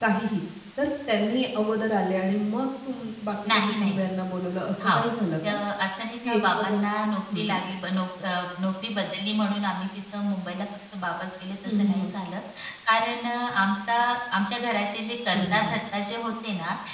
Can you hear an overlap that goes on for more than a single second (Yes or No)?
No